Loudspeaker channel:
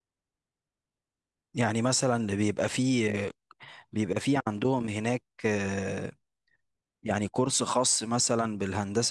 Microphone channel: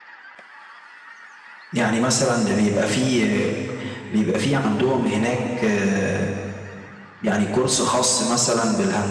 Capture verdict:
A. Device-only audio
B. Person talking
A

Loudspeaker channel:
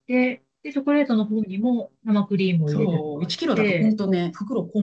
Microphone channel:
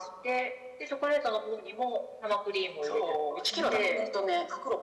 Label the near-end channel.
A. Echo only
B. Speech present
B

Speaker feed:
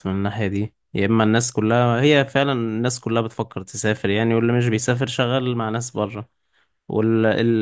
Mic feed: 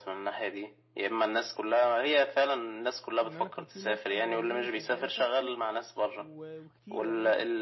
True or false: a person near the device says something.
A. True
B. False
A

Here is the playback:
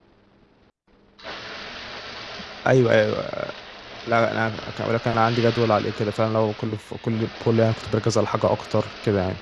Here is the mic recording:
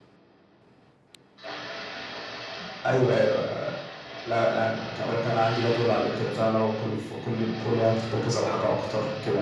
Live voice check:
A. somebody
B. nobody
B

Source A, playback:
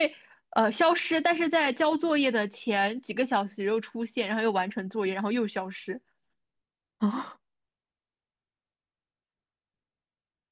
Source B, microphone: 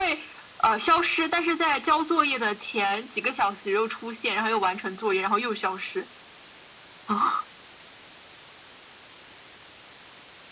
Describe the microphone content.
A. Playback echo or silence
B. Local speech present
A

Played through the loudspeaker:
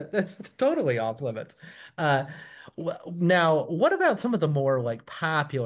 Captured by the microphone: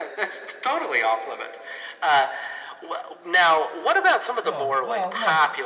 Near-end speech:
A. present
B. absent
A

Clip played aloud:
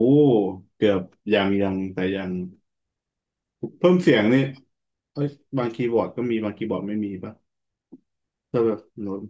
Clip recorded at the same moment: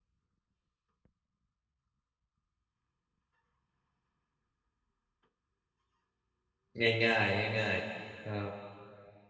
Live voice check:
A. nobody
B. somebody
B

